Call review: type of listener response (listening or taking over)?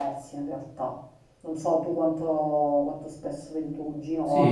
taking over